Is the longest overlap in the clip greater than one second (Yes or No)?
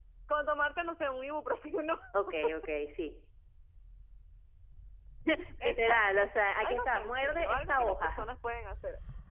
Yes